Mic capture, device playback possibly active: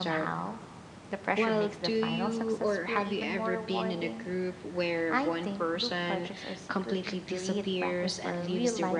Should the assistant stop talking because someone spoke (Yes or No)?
Yes